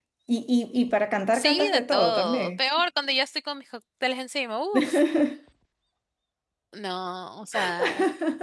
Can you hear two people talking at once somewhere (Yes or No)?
Yes